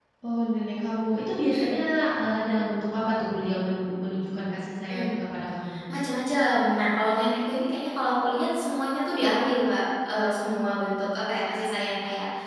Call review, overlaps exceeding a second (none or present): none